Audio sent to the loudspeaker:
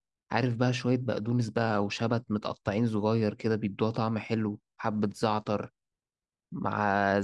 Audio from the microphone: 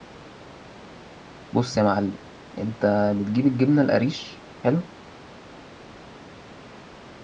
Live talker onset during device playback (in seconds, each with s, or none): 1.5 s